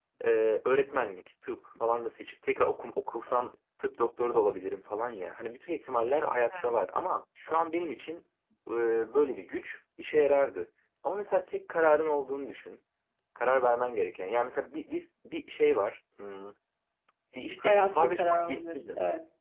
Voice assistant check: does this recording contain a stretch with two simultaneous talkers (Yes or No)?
Yes